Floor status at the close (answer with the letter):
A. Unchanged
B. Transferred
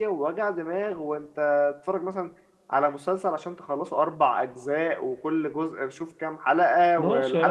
B